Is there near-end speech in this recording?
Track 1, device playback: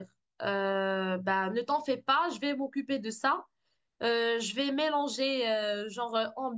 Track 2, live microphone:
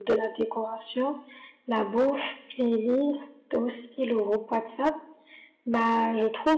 Yes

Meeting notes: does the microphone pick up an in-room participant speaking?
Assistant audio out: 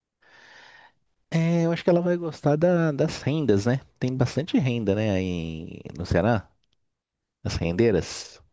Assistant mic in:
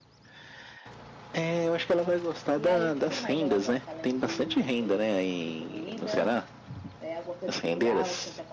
Yes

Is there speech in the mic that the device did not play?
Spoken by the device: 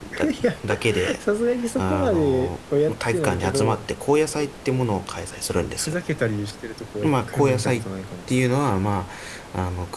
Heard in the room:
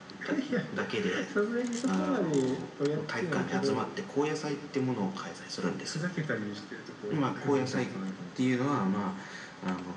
No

